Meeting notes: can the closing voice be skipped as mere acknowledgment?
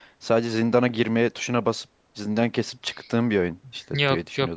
No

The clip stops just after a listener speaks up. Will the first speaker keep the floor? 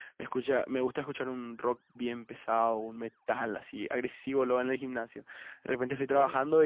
Yes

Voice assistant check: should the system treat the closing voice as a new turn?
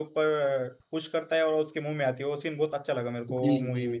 Yes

